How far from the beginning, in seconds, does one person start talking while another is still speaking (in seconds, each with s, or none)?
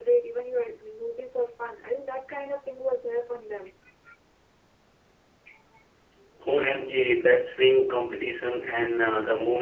none